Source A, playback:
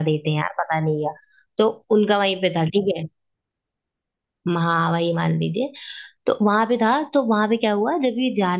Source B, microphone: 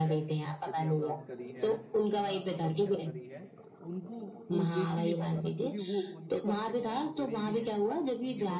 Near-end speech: present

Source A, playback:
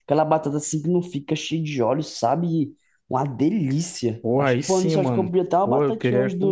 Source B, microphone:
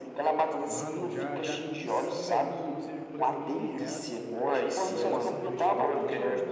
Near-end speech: present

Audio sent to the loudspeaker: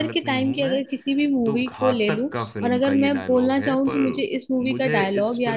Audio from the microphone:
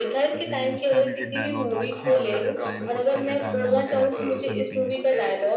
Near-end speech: present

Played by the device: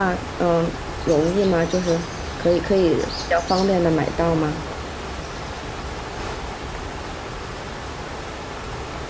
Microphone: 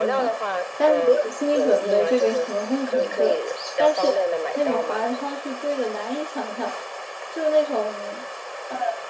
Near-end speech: present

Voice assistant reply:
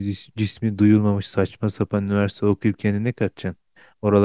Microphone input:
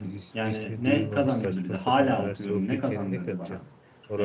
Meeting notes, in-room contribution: present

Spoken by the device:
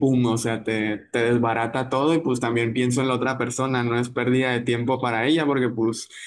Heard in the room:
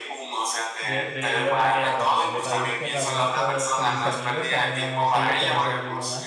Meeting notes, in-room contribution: present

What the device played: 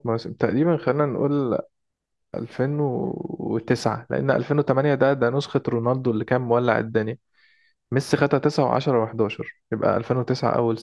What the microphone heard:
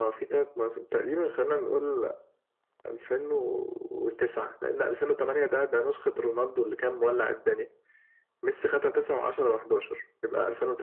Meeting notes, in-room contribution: none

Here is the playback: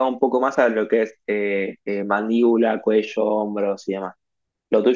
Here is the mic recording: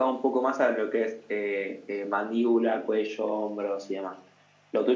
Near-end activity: none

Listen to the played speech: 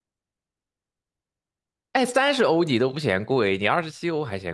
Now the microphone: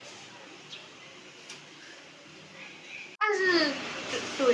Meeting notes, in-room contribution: present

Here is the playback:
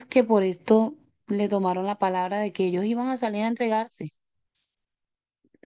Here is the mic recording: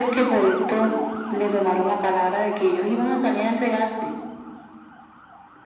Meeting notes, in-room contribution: none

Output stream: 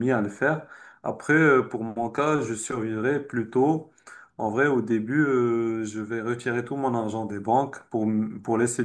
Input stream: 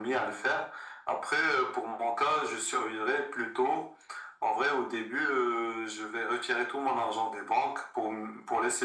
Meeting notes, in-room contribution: none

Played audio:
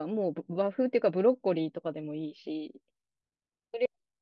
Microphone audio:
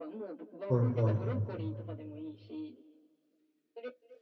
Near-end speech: present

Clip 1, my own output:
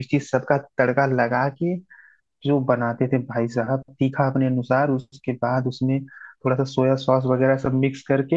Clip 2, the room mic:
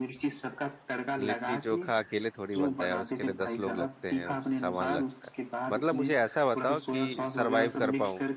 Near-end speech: present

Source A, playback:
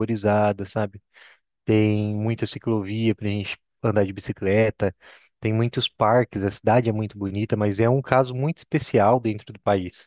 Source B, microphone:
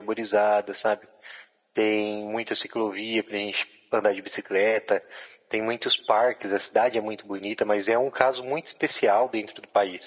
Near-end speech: none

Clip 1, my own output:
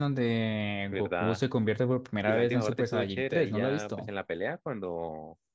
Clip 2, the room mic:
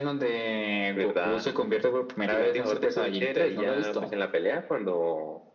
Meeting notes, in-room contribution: none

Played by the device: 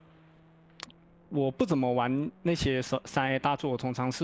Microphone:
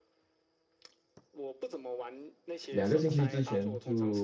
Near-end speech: present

